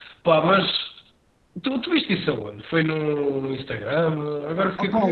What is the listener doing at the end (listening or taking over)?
taking over